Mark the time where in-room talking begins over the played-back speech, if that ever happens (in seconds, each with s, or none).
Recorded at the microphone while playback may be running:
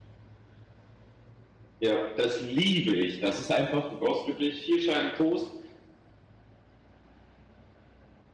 1.8 s